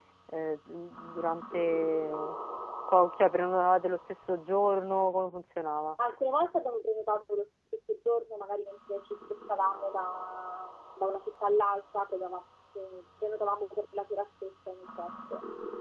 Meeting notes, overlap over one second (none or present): none